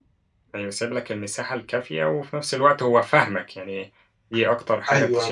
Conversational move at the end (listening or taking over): taking over